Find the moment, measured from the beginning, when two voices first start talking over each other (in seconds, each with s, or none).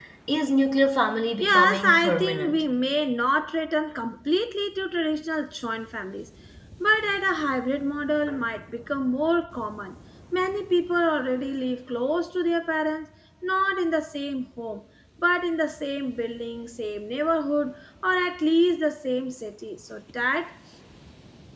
1.4 s